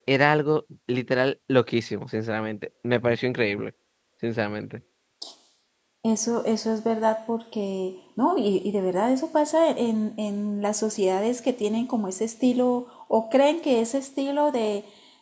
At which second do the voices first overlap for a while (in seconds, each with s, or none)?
none